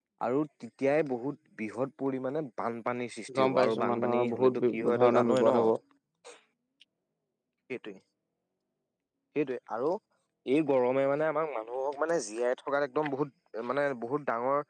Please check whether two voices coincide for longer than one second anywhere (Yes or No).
Yes